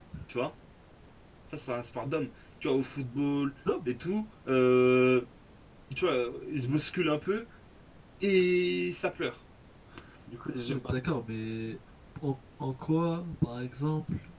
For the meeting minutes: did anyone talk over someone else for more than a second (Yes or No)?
No